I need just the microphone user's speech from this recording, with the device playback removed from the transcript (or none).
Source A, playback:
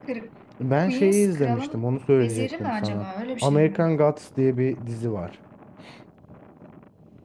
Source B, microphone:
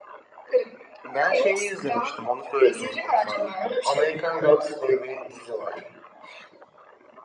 none